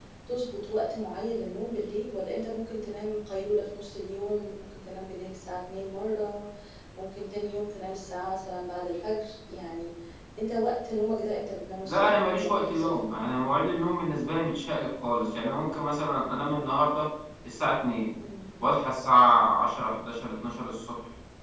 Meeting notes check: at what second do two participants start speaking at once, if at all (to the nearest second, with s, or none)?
12 s